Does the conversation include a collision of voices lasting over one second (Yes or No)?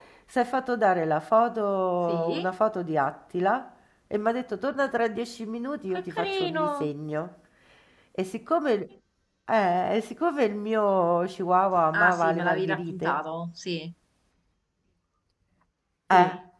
Yes